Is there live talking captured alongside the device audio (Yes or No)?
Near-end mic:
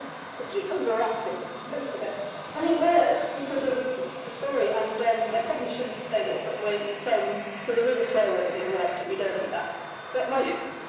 No